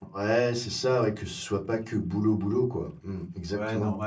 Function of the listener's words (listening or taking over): taking over